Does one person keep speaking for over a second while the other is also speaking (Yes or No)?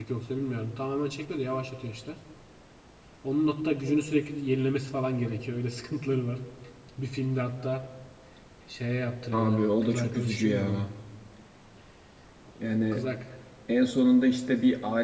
Yes